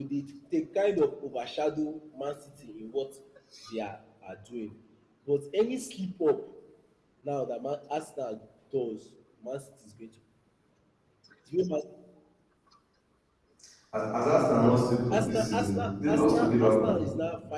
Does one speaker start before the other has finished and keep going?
Yes, from 15.1 s

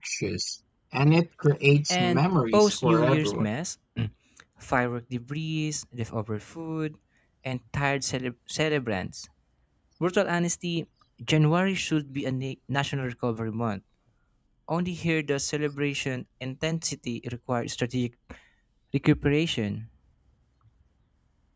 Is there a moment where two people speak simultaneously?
Yes, from 1.9 s

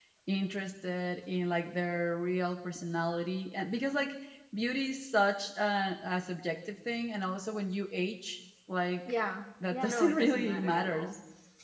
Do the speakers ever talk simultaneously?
Yes, from 9.7 s

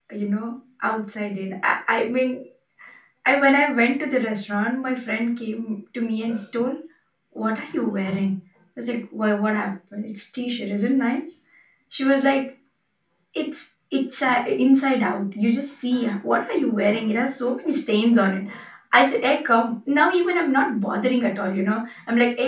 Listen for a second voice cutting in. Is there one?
No

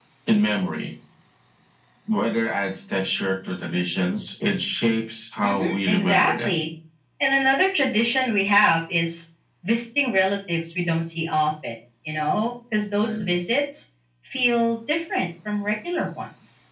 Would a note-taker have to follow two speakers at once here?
Yes, from 5.4 s

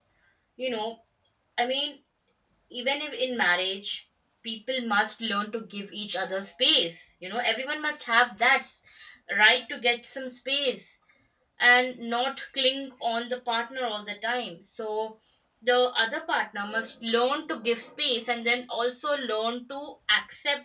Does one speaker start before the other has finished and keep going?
No

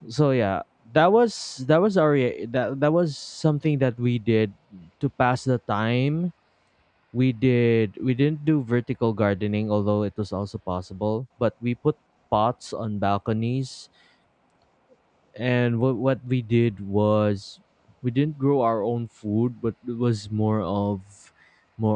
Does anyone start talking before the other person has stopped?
No

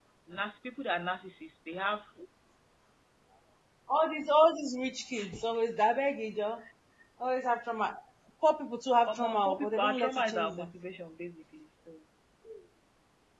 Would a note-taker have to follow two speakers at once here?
Yes, from 9.1 s

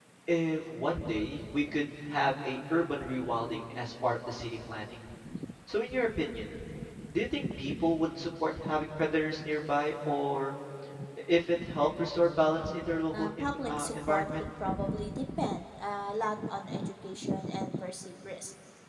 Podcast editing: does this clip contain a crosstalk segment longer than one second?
Yes, from 13.1 s

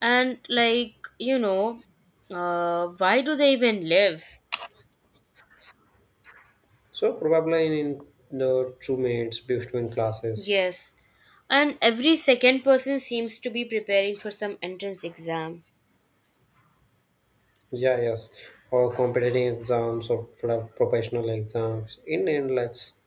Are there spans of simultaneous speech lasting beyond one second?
No

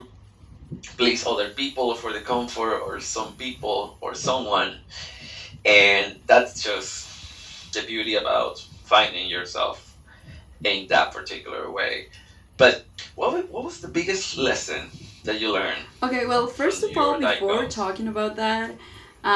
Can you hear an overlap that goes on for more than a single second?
Yes, from 16.6 s

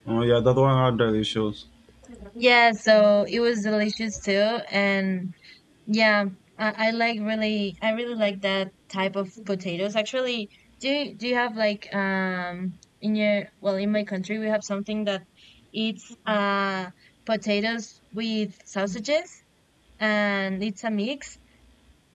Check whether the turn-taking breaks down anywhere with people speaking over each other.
No

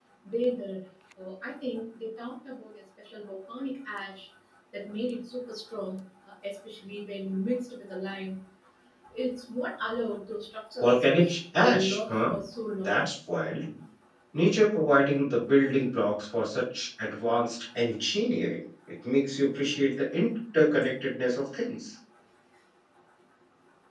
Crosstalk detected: Yes, from 10.8 s

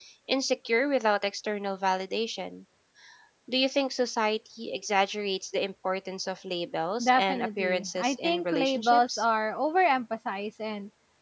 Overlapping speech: Yes, from 7.0 s

